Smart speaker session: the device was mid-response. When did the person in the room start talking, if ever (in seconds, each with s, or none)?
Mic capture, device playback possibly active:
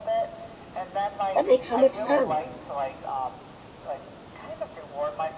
1.3 s